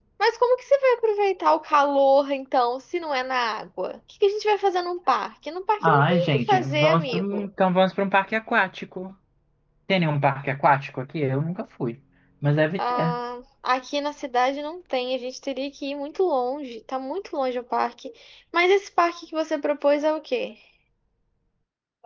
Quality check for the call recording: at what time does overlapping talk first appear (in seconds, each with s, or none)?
5.8 s